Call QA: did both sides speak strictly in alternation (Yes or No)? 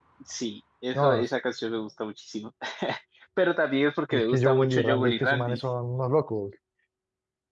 No